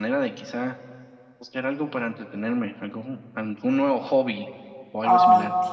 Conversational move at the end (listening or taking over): taking over